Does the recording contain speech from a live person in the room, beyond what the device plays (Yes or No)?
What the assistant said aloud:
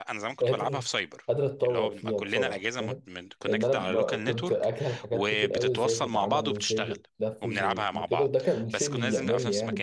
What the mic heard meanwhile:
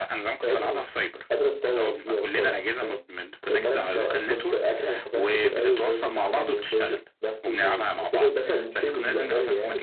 No